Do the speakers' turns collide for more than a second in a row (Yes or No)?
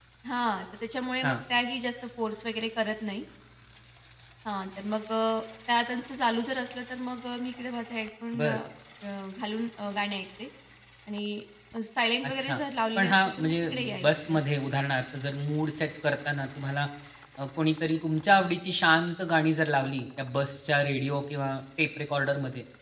Yes